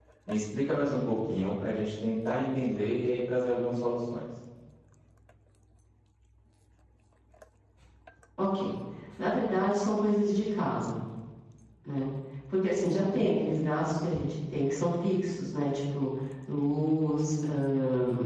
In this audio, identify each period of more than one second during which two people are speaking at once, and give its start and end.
none

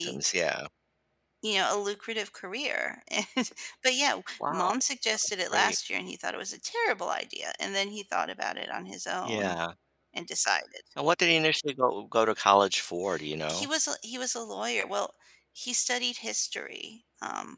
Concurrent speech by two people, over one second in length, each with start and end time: none

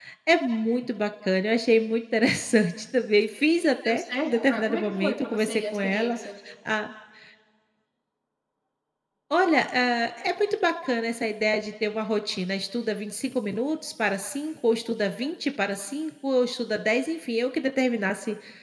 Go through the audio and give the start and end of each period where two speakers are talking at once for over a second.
3.8-6.2

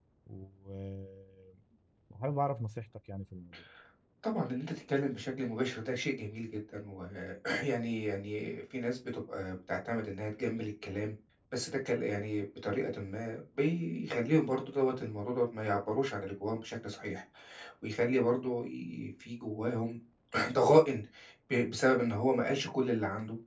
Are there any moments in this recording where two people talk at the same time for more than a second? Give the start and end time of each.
none

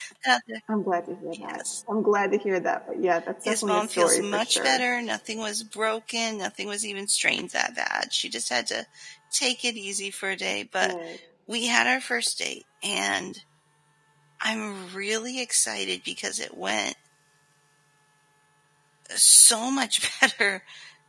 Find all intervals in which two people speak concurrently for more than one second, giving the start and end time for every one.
3.4-4.8

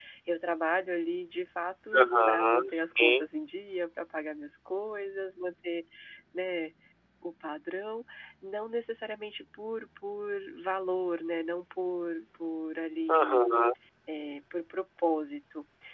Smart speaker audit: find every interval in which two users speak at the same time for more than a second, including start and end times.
2.0-3.2

